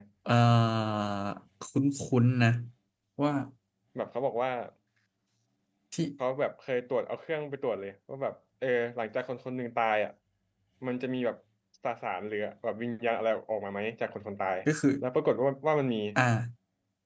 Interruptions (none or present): none